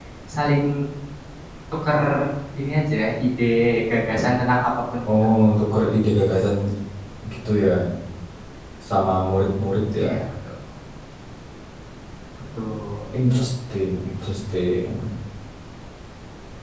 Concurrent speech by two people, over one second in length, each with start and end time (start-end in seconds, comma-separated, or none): none